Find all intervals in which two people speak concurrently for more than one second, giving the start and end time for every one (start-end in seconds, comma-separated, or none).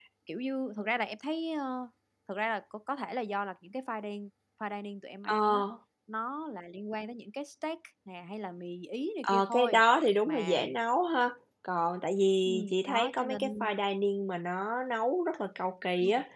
12.4-13.7